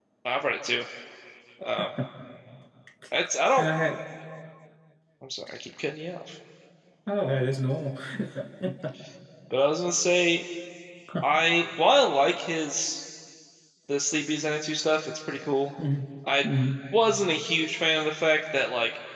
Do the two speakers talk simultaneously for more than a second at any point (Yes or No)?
No